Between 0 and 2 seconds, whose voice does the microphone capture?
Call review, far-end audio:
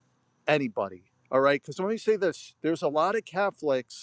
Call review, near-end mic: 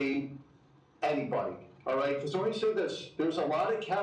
echo only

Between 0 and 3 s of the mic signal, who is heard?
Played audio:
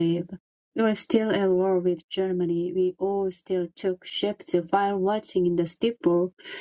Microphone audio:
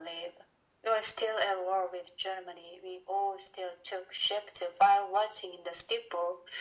echo only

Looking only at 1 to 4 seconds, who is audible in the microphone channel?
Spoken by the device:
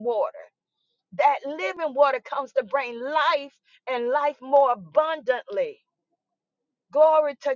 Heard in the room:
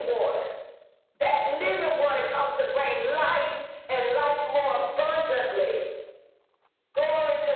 echo only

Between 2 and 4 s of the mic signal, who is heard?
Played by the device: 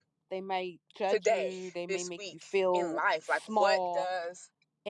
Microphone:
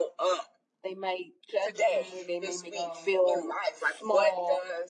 both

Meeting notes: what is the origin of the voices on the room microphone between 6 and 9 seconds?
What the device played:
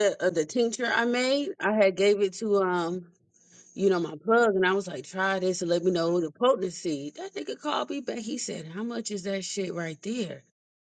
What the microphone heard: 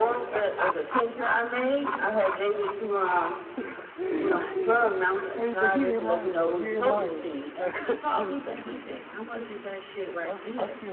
both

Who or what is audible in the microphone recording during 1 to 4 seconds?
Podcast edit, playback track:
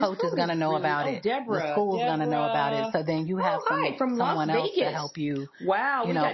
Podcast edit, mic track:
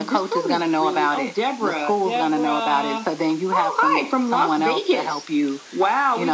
echo only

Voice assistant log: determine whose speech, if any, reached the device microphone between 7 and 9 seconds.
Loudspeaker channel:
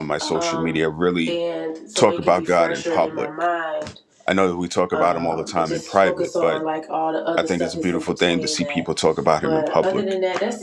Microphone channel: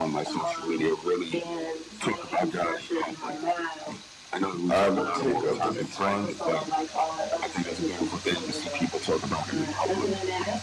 echo only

